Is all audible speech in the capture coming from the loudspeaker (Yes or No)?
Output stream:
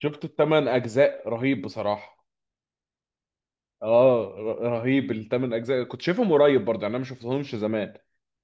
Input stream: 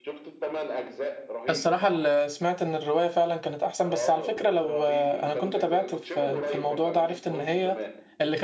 No